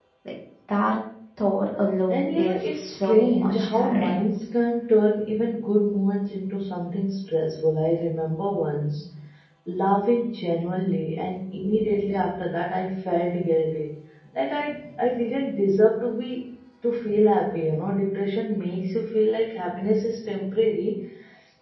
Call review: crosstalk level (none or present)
present